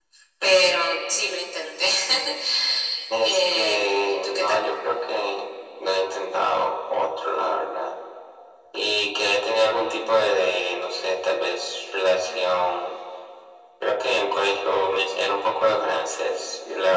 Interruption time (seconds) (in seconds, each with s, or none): 3.2 s